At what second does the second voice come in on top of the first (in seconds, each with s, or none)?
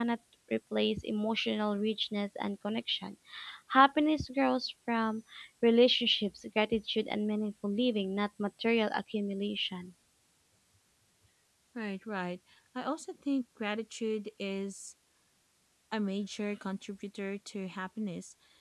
none